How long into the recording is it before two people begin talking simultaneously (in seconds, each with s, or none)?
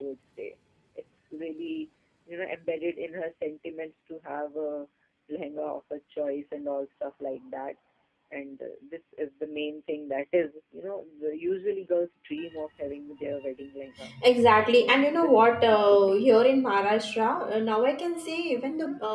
14.7 s